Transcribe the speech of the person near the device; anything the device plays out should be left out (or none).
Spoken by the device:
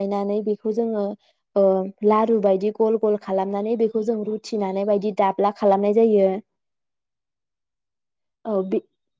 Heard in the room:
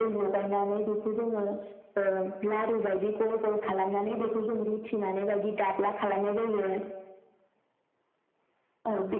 none